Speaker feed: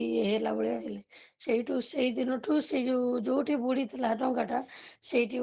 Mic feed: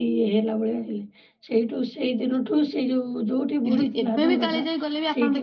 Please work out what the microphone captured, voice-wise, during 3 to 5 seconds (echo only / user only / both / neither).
both